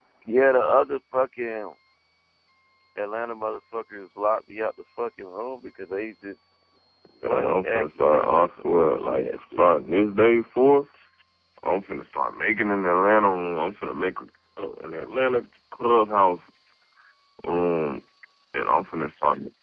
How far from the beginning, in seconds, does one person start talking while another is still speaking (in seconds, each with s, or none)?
7.2 s